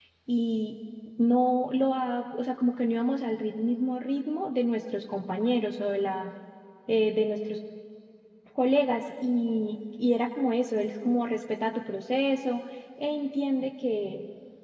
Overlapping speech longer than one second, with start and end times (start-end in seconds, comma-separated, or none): none